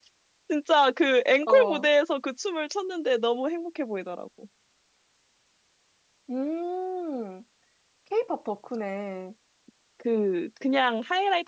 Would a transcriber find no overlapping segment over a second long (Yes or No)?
Yes